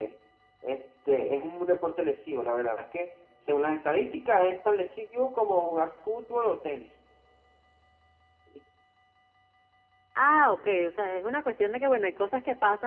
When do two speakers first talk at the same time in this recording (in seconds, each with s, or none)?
none